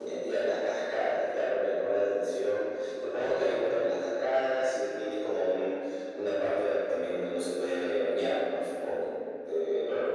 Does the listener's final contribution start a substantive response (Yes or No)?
Yes